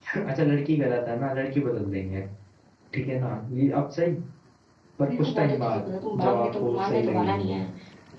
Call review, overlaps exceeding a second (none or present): present